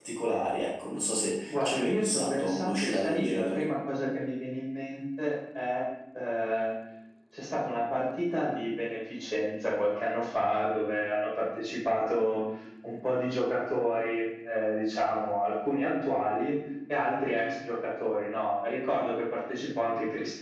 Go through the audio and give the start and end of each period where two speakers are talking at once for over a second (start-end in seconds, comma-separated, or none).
1.5-3.6